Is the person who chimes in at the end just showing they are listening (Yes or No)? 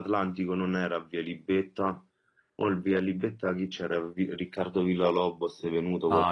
No